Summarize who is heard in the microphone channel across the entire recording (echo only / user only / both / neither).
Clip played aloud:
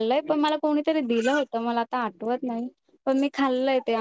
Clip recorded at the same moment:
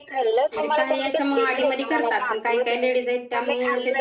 both